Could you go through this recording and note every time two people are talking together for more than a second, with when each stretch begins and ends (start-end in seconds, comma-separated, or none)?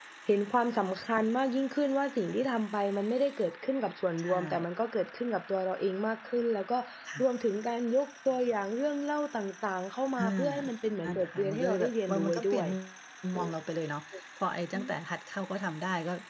11.0-12.7